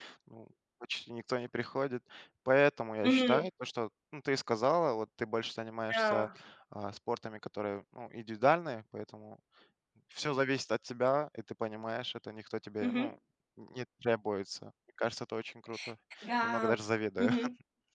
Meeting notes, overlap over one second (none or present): none